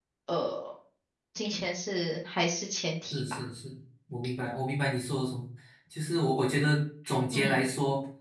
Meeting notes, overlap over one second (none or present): none